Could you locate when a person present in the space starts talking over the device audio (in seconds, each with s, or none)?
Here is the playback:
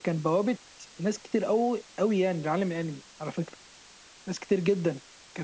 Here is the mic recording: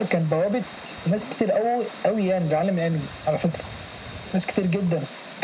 none